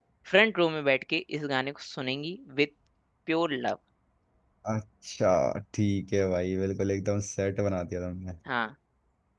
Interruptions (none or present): none